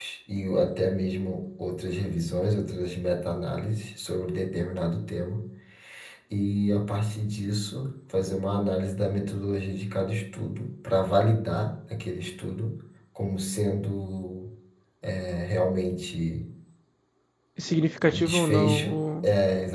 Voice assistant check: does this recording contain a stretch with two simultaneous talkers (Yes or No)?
Yes